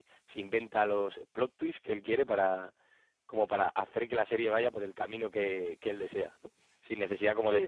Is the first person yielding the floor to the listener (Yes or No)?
No